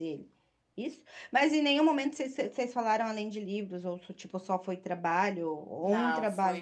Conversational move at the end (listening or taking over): taking over